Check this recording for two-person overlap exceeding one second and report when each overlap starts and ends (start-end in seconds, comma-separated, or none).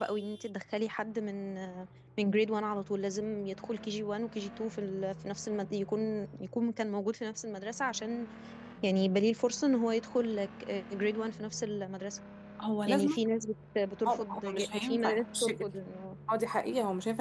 14.1-15.6